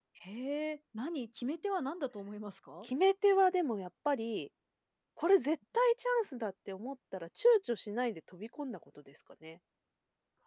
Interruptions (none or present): none